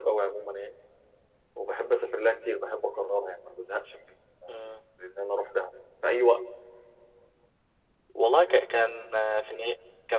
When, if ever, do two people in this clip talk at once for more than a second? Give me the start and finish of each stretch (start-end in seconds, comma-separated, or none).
none